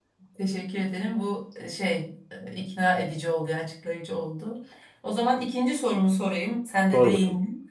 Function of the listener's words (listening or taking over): listening